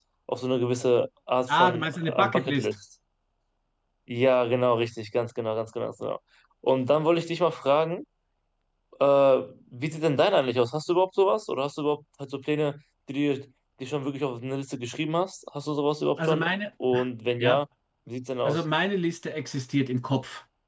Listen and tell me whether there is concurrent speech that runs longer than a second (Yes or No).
Yes